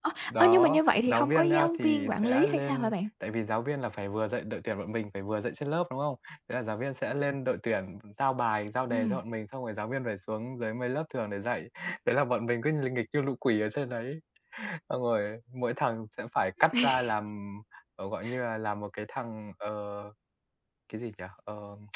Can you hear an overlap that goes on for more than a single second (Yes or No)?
Yes